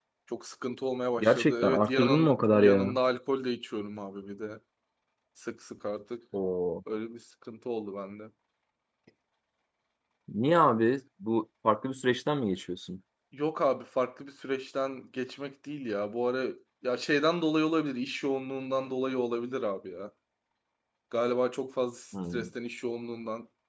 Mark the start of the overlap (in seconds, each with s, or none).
1.2 s